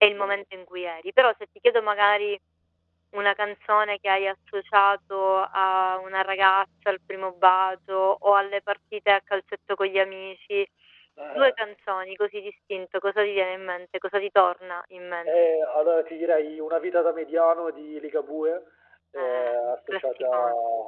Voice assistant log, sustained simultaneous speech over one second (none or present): present